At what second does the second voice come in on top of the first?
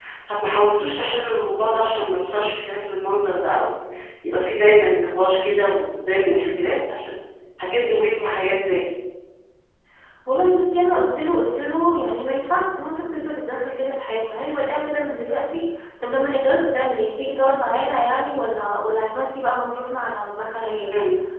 none

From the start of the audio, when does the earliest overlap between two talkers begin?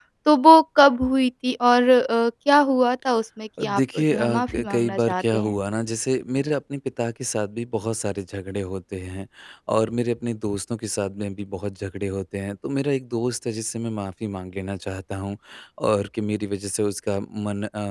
3.6 s

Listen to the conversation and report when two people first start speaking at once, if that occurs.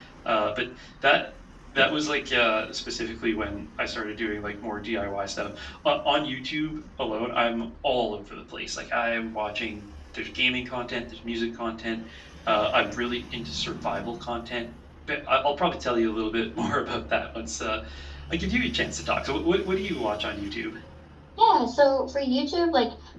none

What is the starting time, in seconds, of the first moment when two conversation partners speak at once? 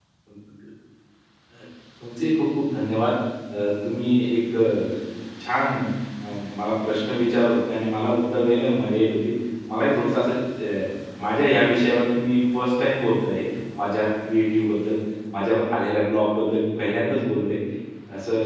none

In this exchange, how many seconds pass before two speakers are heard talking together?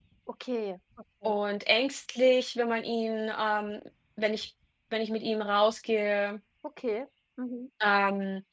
none

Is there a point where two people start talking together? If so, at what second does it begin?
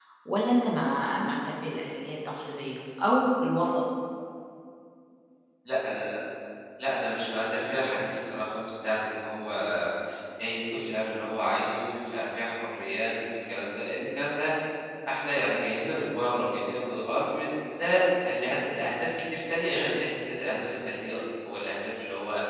none

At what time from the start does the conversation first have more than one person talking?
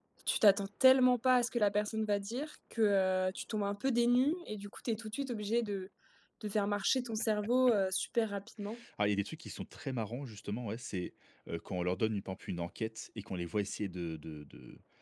none

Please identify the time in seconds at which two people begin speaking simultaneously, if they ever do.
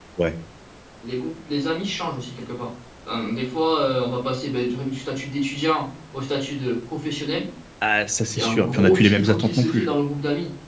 8.4 s

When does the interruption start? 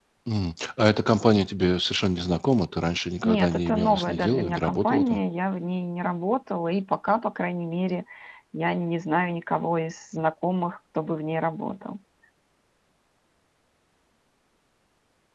3.2 s

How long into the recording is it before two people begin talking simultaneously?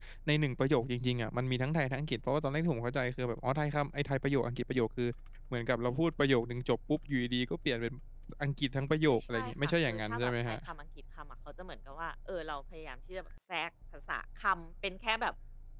9.1 s

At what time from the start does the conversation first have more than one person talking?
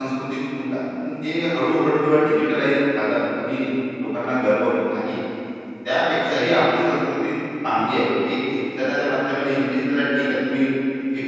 none

